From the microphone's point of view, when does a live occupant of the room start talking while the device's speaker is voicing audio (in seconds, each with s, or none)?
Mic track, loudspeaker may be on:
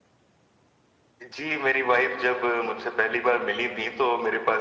none